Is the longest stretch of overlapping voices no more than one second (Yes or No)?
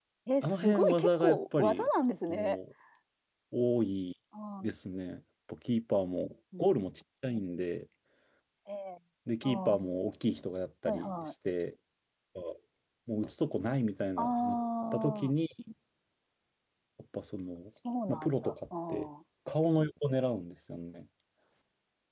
No